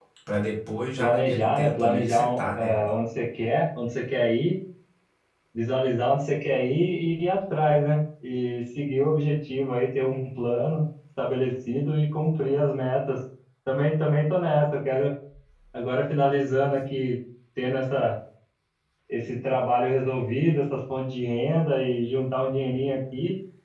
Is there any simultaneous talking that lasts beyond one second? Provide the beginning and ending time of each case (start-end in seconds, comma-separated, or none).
1.0-2.9